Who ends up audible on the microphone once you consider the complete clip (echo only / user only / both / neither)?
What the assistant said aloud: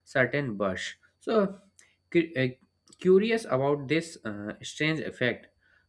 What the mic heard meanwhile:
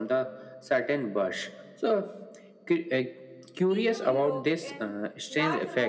both